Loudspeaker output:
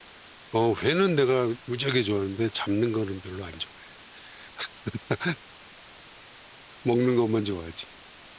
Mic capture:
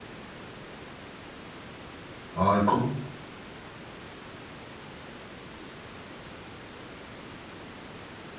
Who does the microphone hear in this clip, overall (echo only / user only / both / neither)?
user only